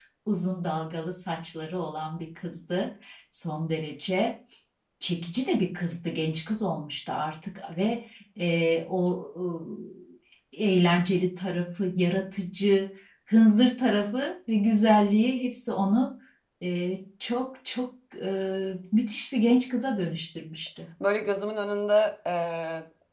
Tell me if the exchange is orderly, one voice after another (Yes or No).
Yes